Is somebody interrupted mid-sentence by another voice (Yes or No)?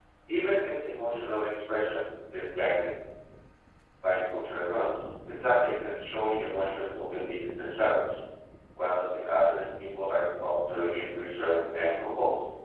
No